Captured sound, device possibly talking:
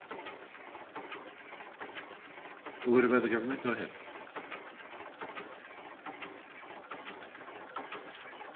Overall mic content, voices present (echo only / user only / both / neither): user only